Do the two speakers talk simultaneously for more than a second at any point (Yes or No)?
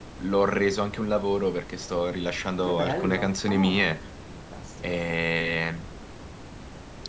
Yes